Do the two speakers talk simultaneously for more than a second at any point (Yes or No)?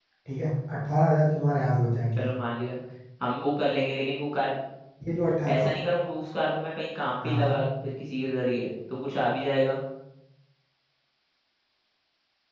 No